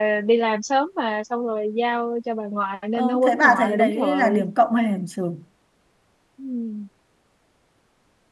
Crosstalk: present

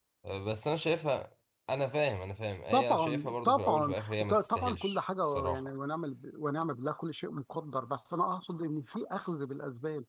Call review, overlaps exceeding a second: present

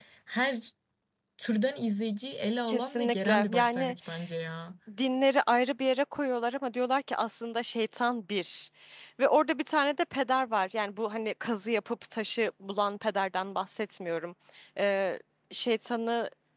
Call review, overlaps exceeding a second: present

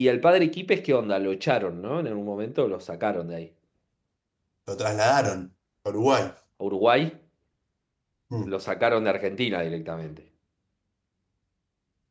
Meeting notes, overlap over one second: none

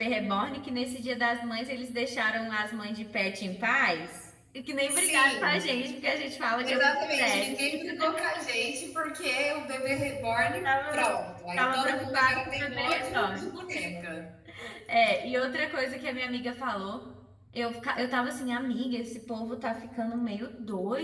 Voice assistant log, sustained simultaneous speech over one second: present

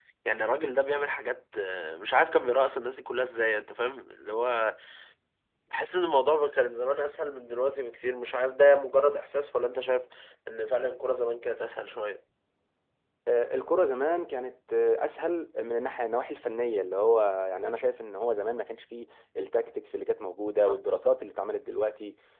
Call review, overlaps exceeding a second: none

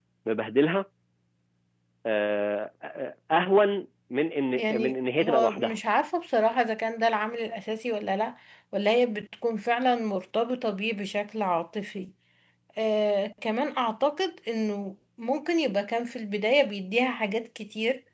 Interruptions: present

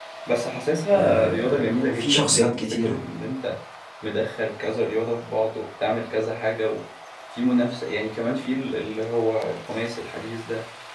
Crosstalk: present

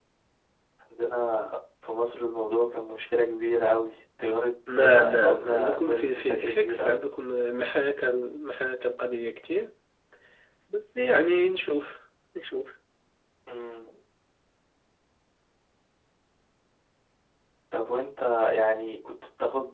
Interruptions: present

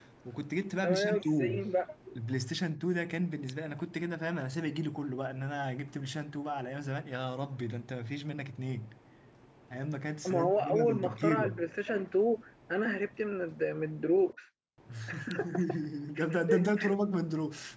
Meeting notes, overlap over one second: present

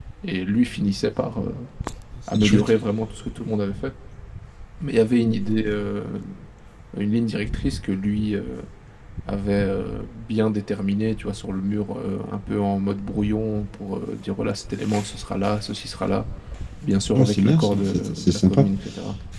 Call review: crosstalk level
present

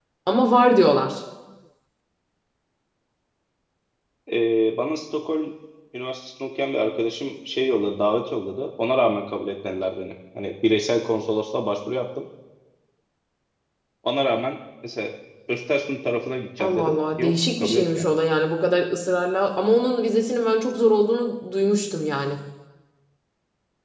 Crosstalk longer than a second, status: present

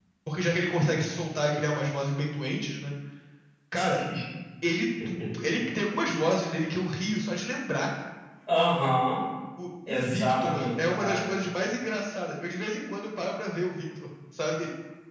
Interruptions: present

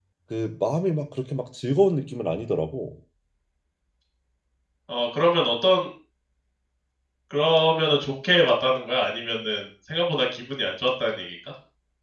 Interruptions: none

